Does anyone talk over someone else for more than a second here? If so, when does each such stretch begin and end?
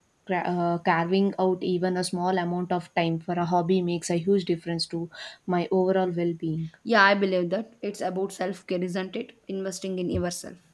none

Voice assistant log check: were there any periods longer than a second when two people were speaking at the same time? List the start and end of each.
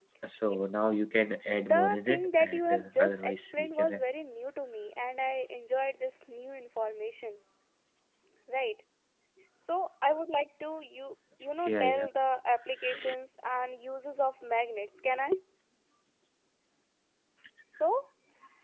1.6-4.0

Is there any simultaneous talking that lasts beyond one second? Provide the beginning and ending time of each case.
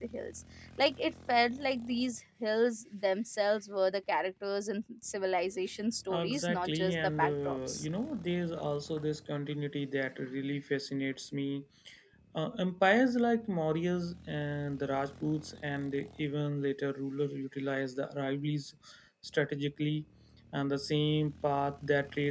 6.1-7.8

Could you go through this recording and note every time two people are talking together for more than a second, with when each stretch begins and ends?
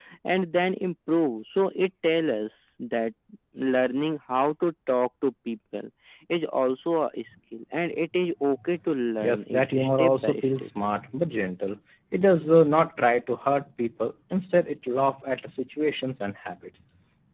9.2-10.7

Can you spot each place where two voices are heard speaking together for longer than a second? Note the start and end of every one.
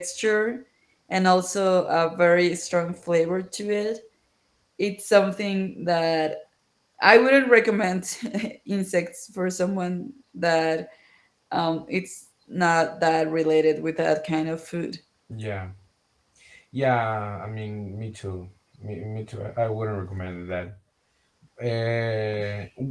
none

